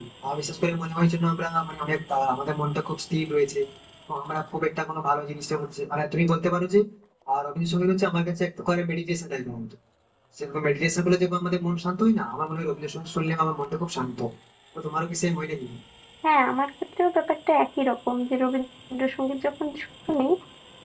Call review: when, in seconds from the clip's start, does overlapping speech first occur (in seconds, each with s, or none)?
none